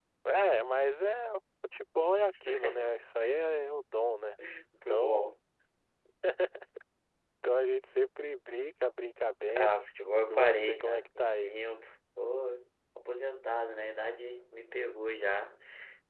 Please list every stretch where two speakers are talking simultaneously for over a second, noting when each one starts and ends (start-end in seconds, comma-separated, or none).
10.3-11.5